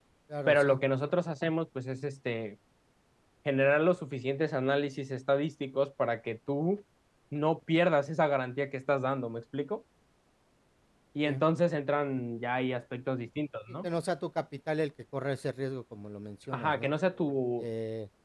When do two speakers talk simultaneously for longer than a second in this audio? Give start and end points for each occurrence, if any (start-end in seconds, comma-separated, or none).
none